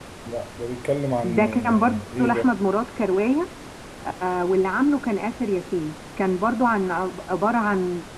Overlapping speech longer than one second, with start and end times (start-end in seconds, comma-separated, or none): 1.2-2.5